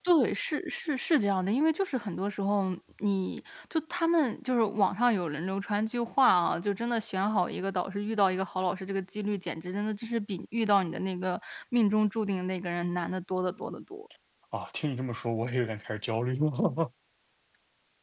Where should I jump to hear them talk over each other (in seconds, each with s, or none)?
none